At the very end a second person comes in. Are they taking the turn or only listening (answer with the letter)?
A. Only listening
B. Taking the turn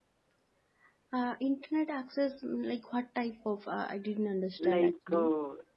B